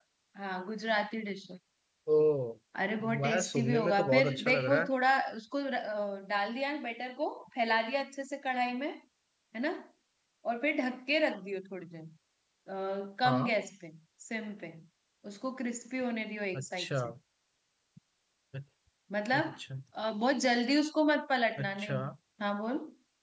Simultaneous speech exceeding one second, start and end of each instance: 3.2-4.9

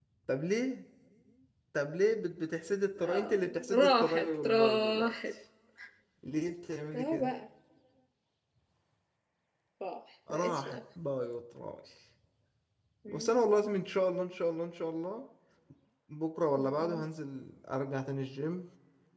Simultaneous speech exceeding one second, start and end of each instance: 3.0-5.1

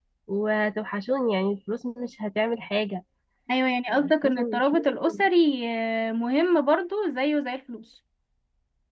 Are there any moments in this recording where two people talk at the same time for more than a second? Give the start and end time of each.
3.9-5.3

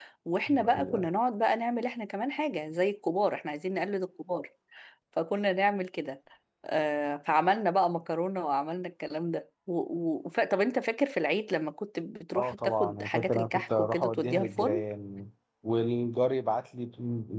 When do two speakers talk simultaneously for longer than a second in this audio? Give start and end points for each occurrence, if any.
12.3-14.8

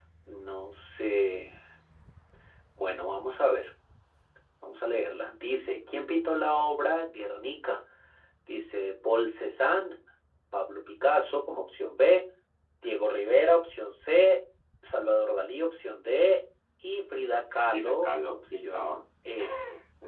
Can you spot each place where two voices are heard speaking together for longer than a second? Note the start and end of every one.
17.5-18.9

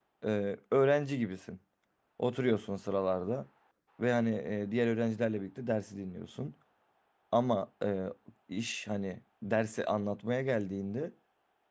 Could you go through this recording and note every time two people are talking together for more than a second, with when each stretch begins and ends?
none

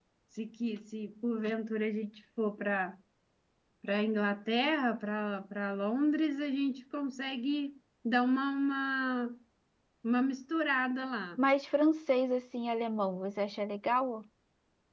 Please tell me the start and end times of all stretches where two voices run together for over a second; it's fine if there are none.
none

